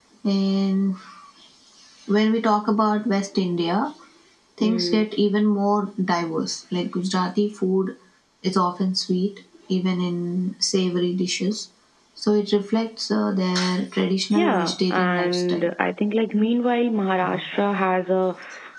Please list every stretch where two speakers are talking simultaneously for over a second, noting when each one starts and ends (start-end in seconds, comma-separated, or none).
14.3-15.7